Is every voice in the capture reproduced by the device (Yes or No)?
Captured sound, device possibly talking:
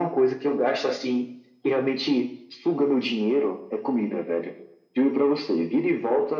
Yes